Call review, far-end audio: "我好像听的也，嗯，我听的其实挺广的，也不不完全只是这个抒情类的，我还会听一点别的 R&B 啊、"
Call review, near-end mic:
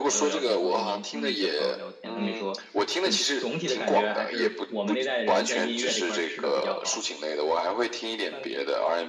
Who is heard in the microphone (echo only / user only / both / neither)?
both